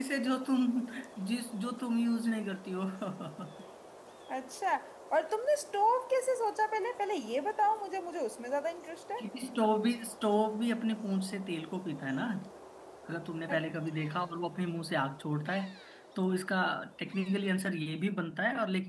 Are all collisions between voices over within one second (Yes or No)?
Yes